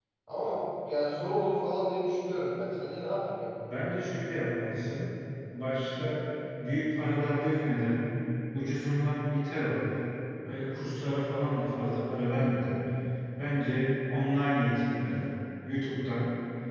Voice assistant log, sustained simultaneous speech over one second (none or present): none